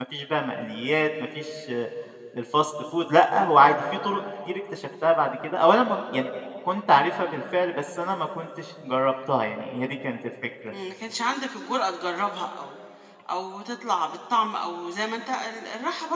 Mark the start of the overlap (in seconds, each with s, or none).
none